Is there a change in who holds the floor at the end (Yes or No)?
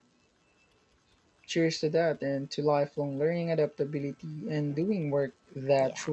Yes